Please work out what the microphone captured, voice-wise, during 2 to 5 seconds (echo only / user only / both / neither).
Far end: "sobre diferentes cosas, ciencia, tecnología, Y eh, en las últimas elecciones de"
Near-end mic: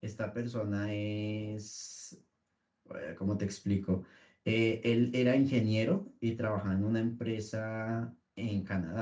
user only